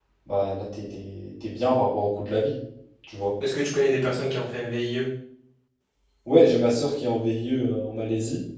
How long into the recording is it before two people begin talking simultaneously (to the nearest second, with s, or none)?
none